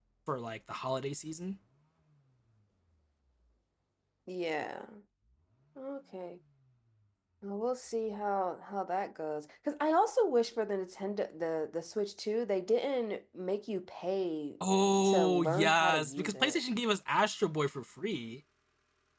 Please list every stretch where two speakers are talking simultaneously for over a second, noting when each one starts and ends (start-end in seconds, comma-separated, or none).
15.0-16.6